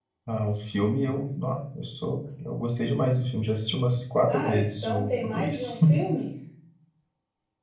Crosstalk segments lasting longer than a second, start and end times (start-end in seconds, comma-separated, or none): 4.3-5.8